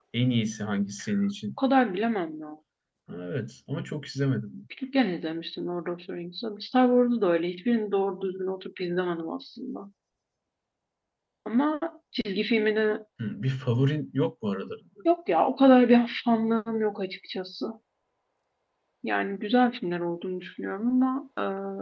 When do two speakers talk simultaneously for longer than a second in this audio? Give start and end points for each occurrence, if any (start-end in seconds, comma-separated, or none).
none